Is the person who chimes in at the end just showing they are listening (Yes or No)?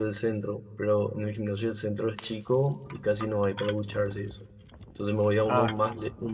Yes